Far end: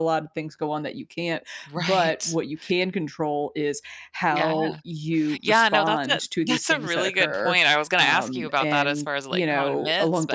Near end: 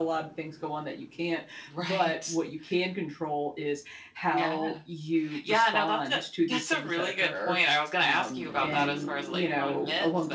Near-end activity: none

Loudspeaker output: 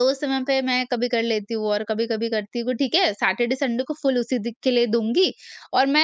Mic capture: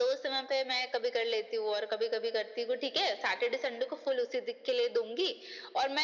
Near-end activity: none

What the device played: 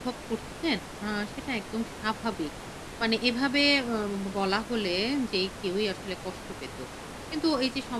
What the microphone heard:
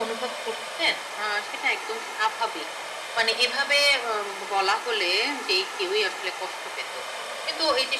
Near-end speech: none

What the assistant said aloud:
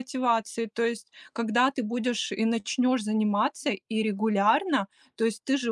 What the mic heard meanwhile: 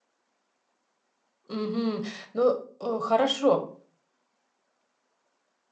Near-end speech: present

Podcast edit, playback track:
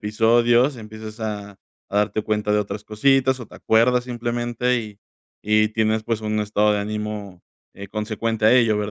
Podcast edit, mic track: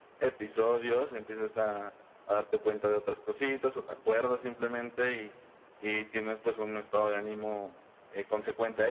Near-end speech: none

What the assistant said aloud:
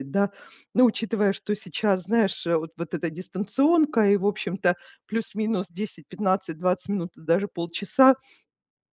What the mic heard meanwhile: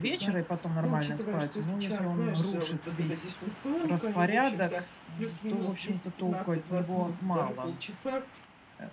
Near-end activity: present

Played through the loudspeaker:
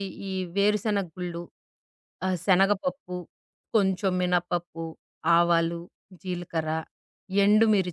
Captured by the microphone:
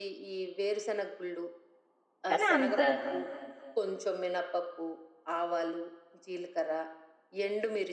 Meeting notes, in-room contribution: present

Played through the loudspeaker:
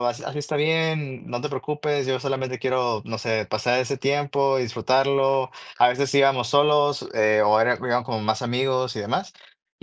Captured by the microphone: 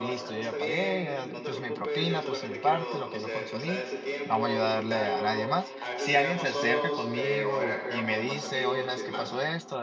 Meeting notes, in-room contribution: present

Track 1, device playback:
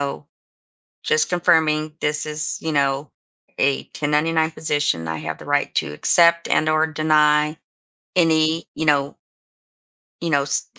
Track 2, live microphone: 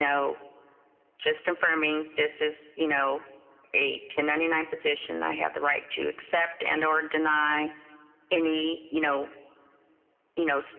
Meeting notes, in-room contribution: none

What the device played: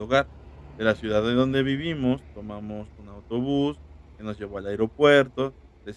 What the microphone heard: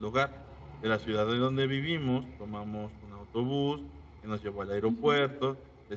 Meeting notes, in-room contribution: present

